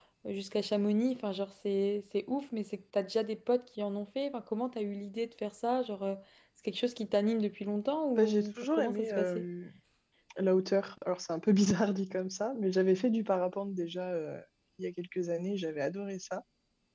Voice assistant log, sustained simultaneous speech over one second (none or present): present